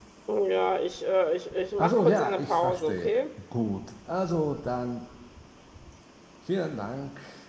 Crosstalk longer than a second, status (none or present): present